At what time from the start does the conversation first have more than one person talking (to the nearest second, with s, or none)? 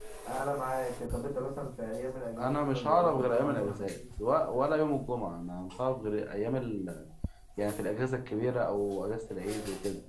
2 s